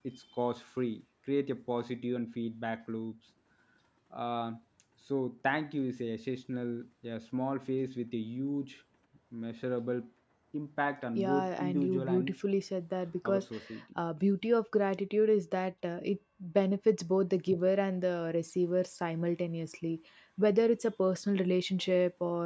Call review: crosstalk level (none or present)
present